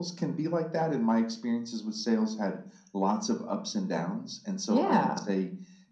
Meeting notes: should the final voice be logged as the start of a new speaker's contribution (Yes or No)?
No